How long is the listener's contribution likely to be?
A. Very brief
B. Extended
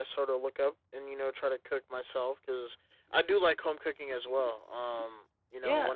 A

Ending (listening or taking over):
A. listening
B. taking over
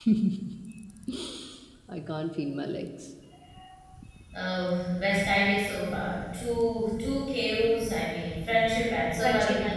B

